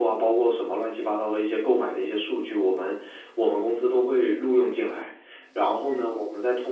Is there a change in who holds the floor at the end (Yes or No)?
No